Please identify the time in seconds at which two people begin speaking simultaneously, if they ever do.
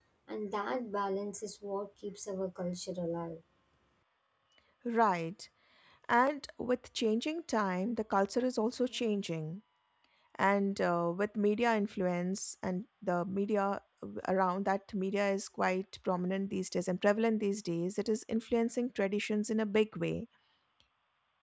none

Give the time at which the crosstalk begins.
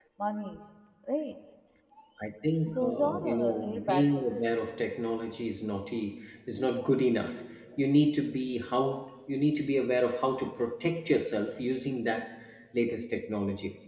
2.6 s

